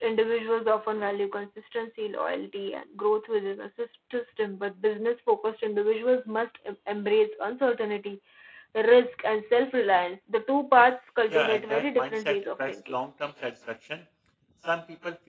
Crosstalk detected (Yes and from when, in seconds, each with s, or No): Yes, from 11.3 s